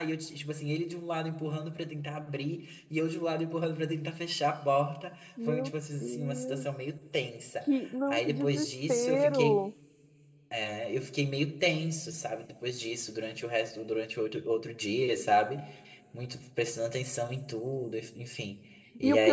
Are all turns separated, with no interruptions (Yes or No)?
No